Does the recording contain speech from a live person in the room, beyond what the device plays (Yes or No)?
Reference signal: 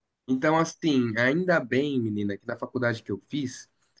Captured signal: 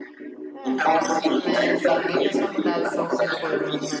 Yes